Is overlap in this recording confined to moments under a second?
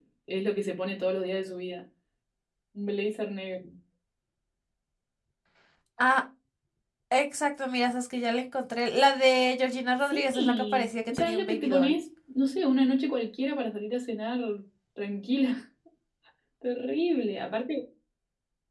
No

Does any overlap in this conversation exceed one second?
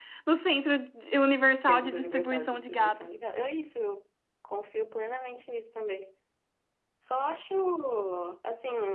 Yes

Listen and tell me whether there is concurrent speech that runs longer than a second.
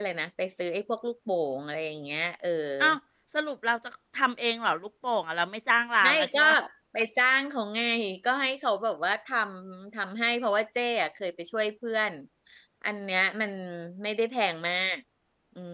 No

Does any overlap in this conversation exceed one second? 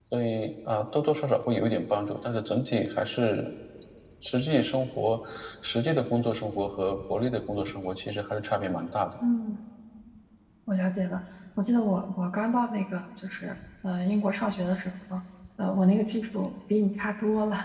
No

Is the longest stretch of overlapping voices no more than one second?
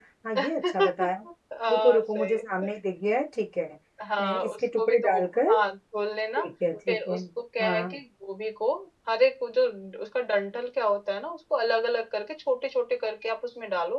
No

